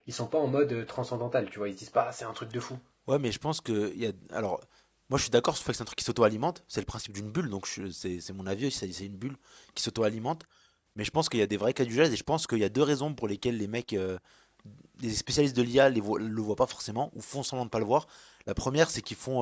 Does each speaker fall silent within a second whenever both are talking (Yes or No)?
Yes